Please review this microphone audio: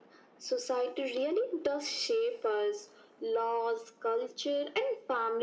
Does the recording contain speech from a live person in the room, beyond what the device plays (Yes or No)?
No